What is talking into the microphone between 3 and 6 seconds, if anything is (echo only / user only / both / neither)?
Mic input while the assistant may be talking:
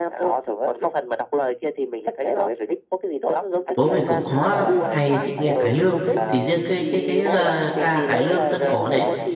both